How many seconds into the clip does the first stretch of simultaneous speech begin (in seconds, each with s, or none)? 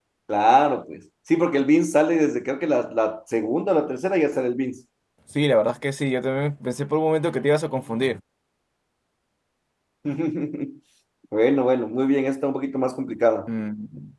none